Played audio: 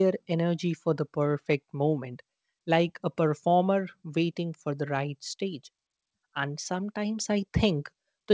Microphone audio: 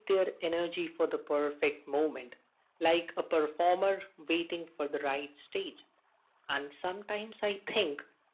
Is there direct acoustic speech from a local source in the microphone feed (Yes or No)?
No